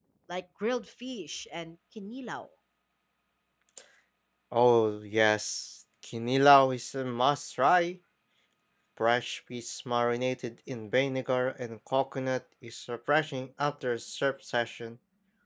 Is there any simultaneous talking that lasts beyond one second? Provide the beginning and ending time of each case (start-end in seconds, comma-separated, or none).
none